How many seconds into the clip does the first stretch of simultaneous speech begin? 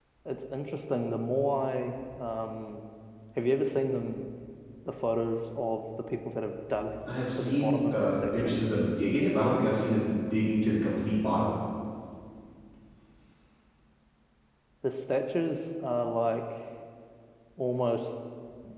7.3 s

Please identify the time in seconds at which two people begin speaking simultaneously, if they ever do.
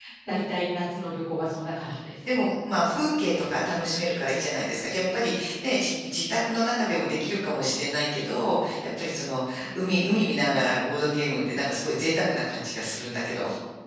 none

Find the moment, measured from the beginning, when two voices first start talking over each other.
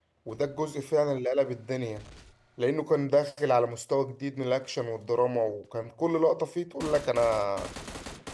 none

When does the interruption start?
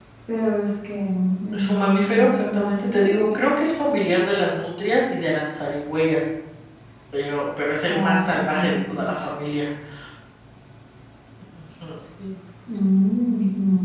1.5 s

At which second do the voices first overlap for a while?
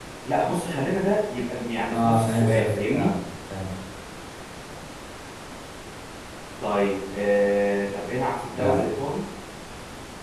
1.9 s

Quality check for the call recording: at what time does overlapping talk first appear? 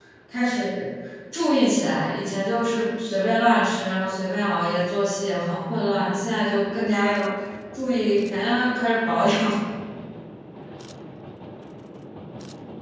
none

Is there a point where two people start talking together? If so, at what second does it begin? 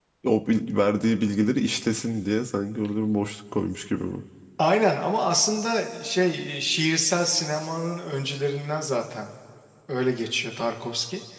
none

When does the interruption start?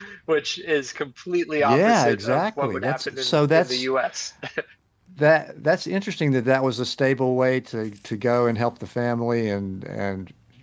1.6 s

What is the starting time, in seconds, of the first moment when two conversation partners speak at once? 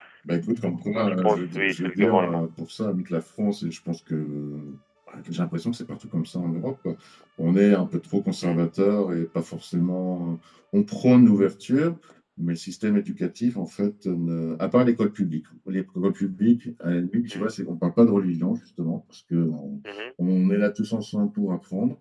0.9 s

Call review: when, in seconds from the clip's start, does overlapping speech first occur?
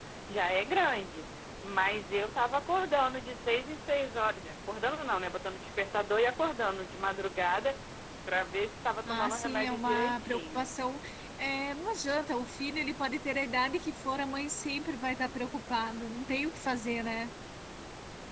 9.1 s

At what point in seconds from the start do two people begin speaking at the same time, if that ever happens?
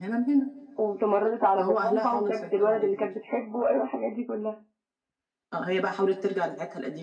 1.6 s

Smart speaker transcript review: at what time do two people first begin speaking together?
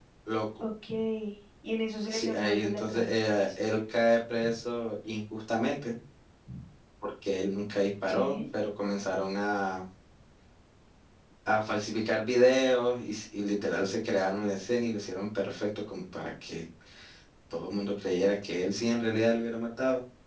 2.1 s

